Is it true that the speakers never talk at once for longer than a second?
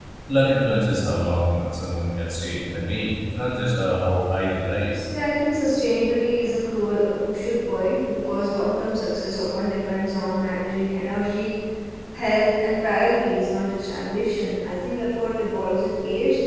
Yes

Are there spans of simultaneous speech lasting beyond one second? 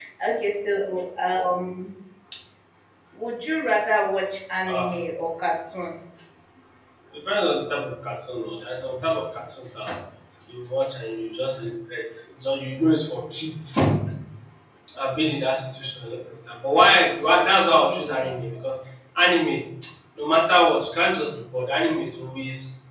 No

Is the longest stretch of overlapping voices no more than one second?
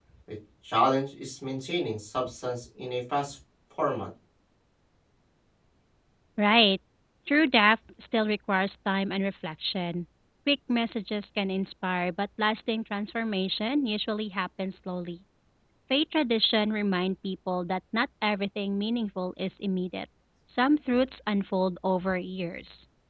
Yes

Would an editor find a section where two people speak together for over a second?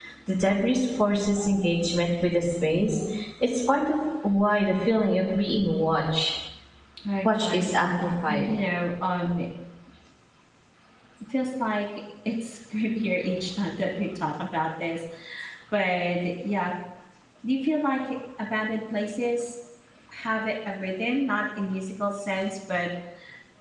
No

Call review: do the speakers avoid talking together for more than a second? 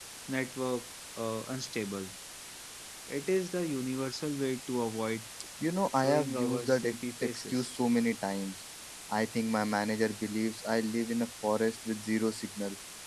No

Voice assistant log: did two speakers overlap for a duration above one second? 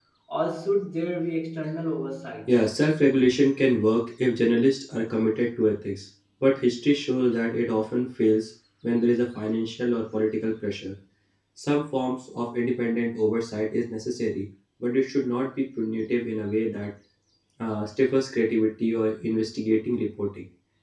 No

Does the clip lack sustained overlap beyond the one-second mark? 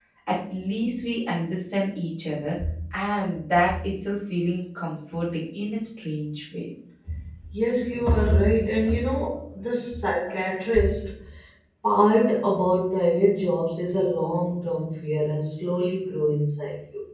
Yes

